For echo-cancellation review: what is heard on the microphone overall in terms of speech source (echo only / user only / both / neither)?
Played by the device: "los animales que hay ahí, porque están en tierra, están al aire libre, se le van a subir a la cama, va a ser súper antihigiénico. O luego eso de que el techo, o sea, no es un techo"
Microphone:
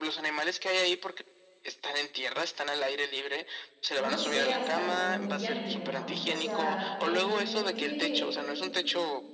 both